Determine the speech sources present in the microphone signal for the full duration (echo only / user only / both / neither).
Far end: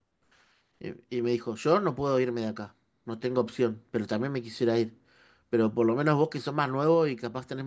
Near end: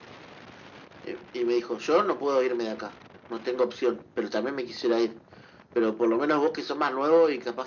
echo only